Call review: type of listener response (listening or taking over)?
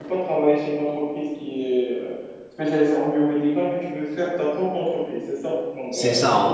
taking over